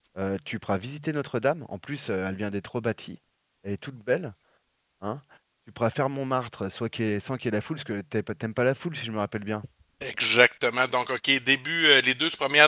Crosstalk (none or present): none